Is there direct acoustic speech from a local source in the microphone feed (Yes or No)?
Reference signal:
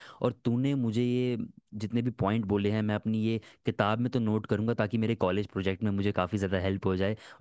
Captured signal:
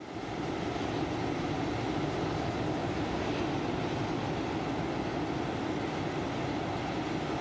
No